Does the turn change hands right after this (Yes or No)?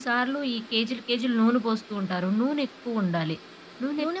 Yes